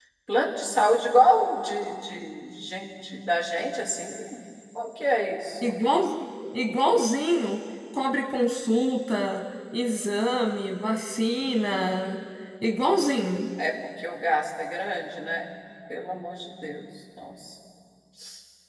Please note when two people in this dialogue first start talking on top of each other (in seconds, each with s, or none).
none